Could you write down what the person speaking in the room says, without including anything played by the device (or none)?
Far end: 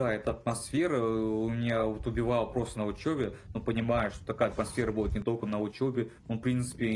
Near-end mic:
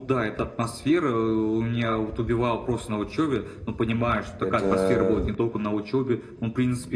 это